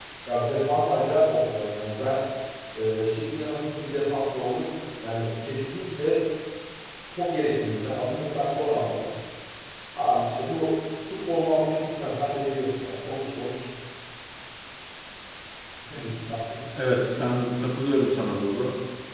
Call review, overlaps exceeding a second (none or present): none